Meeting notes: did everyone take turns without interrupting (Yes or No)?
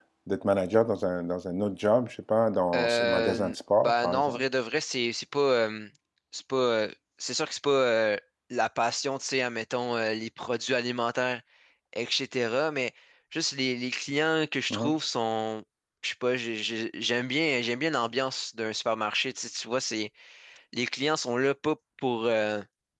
No